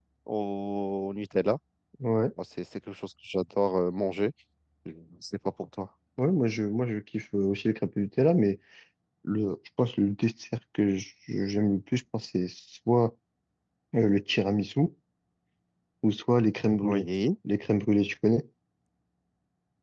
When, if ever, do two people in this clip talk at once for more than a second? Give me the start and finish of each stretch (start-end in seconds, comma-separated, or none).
none